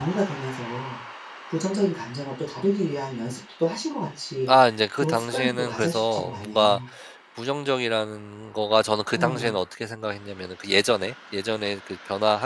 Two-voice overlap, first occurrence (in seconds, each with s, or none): 5.0 s